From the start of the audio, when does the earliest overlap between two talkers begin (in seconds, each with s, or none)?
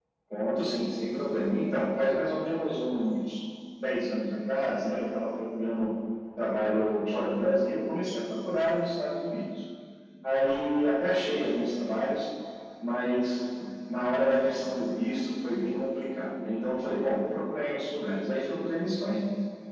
none